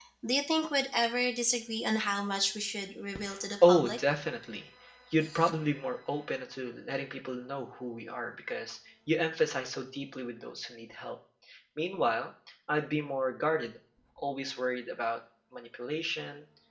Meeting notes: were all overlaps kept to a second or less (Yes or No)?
Yes